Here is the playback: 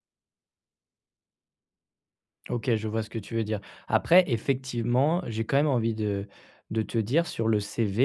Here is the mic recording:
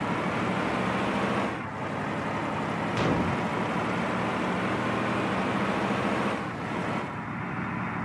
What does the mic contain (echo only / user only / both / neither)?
neither